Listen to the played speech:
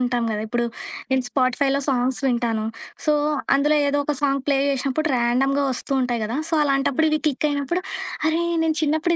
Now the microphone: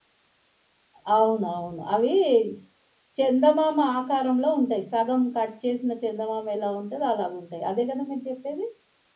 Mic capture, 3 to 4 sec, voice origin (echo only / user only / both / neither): user only